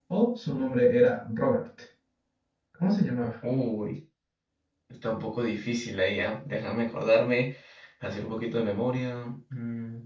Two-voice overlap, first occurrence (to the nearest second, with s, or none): none